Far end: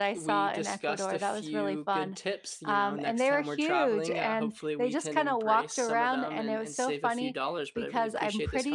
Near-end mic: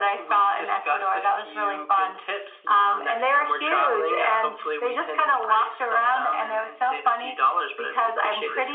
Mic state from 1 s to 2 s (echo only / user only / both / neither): echo only